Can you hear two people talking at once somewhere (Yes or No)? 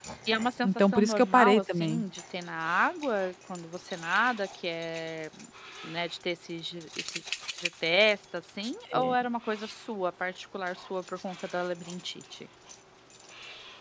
Yes